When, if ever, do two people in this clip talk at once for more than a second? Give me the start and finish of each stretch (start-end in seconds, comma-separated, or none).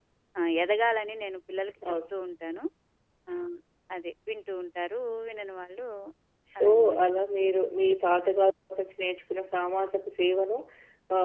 none